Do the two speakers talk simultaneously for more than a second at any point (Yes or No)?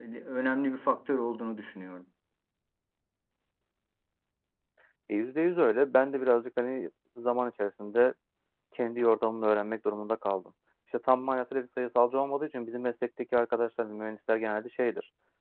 No